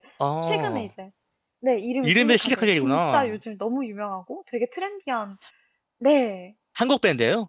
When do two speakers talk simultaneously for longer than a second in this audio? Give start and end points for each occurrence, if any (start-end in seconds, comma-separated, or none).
2.0-3.4